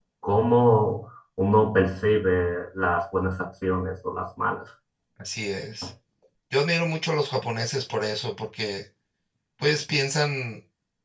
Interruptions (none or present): none